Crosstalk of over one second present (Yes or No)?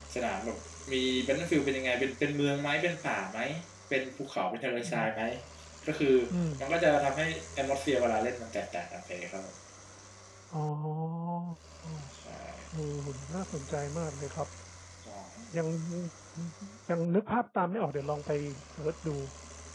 No